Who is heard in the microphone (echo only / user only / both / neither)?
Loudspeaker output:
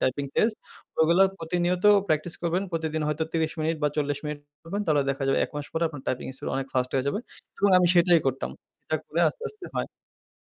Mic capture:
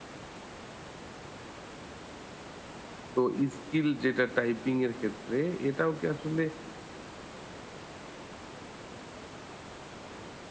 user only